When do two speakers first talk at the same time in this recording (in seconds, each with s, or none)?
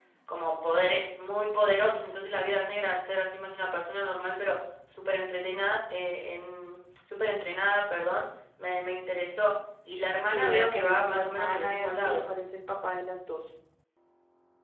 10.3 s